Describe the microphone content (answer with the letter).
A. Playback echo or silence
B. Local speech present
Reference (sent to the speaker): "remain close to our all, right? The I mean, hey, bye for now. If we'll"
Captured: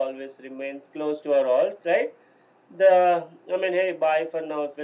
A